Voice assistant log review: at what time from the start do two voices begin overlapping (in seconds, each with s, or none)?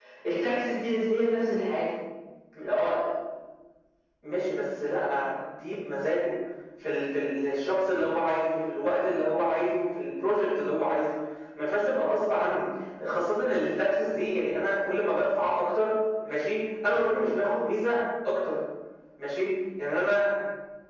none